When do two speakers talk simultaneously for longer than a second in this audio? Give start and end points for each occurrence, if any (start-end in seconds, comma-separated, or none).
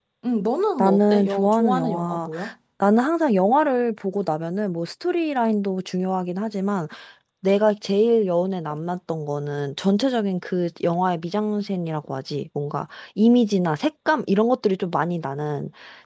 0.8-2.3